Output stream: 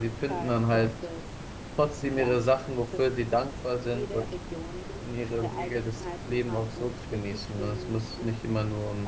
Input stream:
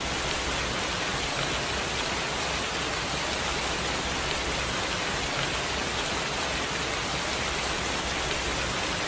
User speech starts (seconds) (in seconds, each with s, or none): none